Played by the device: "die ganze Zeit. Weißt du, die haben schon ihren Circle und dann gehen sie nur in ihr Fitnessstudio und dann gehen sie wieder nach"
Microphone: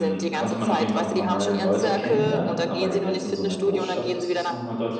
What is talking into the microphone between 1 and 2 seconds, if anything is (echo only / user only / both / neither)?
both